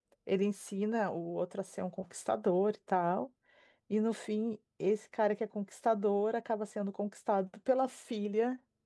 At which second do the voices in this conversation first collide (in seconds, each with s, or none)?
none